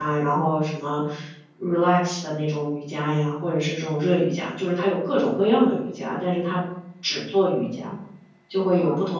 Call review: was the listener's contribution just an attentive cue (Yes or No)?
Yes